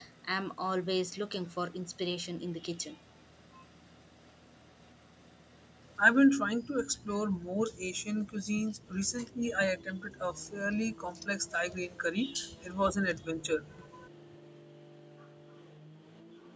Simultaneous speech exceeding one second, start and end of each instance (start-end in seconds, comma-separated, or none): none